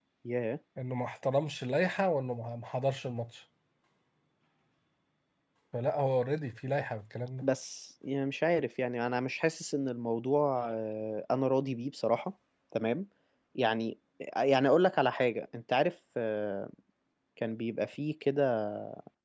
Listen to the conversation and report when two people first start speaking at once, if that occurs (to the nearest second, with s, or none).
none